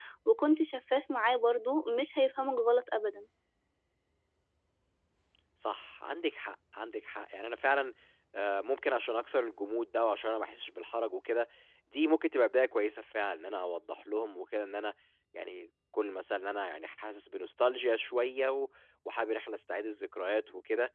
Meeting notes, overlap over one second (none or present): none